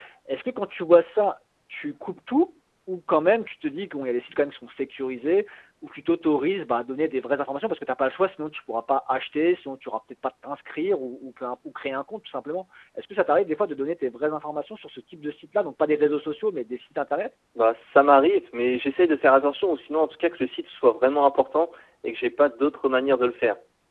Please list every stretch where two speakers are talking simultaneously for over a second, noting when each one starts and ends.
none

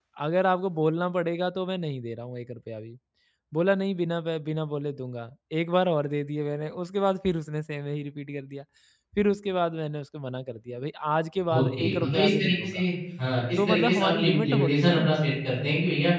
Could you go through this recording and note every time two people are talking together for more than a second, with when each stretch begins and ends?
11.5-12.8, 13.6-15.0

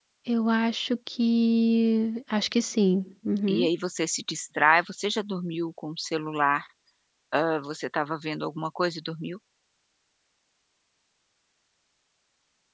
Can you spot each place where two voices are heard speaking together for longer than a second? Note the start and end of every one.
none

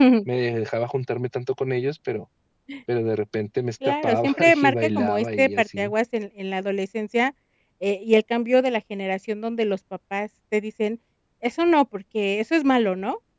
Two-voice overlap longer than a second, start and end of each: 3.9-5.9

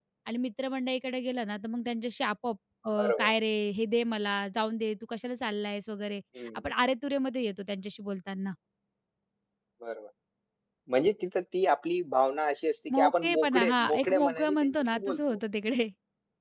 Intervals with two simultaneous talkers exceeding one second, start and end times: 12.9-15.4

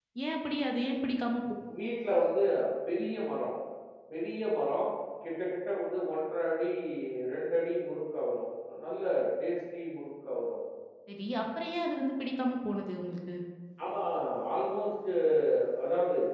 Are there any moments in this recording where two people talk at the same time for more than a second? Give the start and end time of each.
none

